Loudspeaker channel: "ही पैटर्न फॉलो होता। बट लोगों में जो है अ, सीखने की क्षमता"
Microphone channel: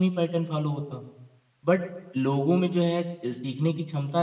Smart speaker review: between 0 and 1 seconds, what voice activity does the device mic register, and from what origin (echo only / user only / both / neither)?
echo only